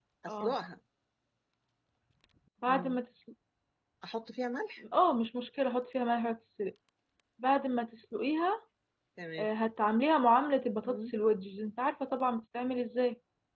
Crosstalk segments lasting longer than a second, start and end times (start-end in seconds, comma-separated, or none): none